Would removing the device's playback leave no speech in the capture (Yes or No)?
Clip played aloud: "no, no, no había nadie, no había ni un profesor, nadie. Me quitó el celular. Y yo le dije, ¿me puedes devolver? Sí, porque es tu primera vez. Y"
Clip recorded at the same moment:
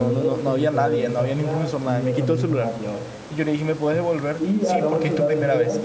No